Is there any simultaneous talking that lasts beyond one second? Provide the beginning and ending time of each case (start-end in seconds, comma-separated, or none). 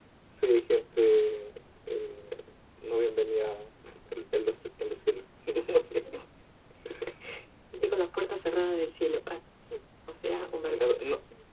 none